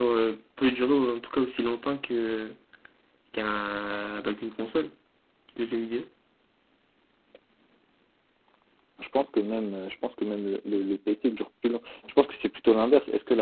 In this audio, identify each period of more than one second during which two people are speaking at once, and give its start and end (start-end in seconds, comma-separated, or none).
none